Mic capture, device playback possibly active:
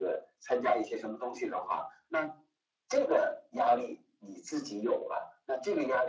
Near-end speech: none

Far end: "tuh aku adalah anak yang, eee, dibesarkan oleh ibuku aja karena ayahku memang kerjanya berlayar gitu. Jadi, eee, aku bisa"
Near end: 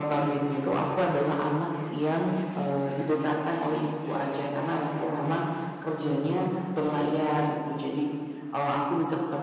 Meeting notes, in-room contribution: none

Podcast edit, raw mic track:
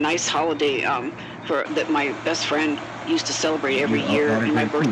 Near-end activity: present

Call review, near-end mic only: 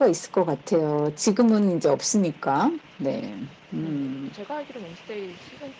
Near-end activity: present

